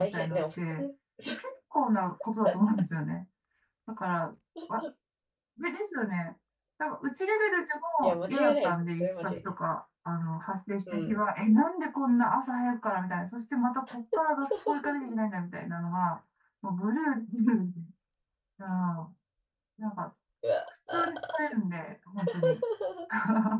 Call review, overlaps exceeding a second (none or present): present